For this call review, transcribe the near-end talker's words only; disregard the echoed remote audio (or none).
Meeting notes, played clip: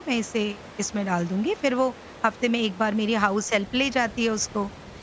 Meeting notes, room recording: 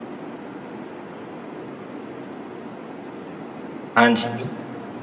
हाँ जी।